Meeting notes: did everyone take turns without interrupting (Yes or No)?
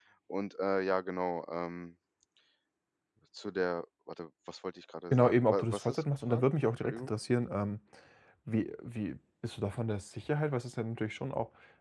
No